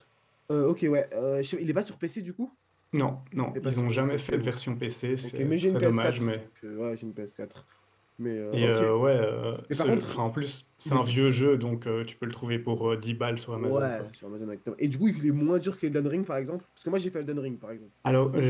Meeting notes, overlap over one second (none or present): present